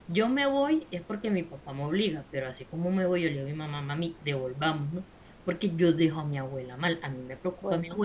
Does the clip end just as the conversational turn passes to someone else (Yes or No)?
No